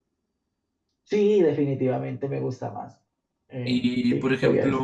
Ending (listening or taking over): taking over